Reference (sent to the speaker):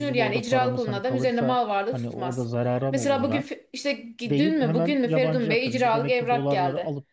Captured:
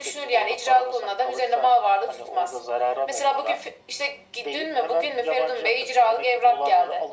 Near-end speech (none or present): none